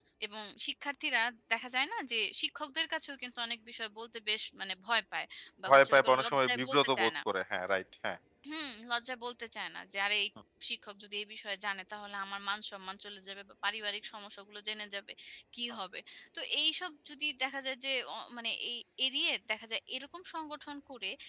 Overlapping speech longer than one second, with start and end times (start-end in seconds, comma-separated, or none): 5.7-7.1